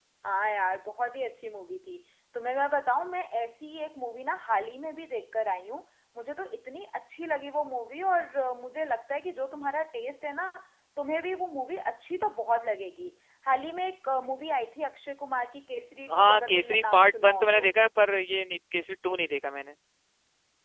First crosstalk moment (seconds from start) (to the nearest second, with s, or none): 16 s